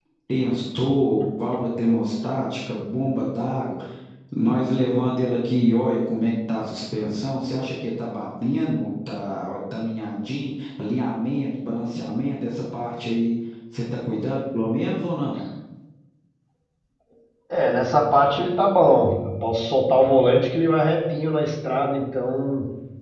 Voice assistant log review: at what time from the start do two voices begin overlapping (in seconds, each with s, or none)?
none